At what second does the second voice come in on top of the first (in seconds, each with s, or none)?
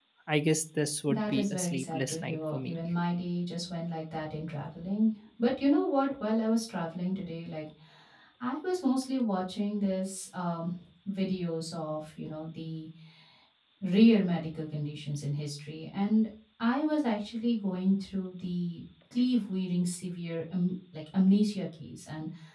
1.1 s